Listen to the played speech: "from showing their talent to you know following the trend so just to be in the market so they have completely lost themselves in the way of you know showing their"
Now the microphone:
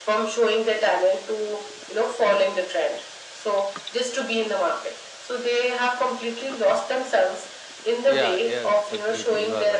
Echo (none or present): present